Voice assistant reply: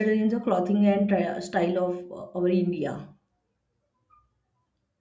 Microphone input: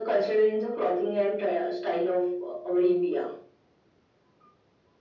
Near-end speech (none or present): none